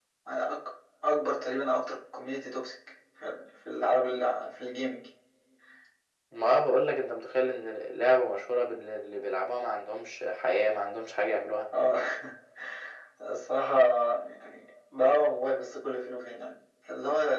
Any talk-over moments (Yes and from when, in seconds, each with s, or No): No